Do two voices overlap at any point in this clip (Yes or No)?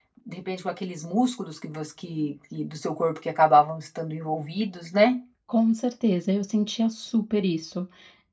No